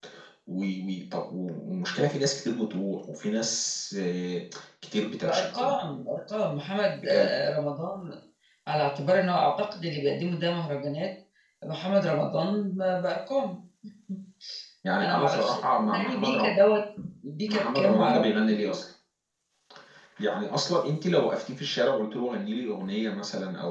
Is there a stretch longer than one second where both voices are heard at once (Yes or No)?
Yes